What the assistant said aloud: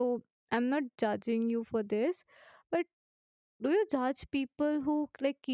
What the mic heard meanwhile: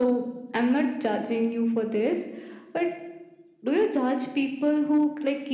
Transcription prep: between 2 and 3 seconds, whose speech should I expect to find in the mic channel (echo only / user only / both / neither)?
echo only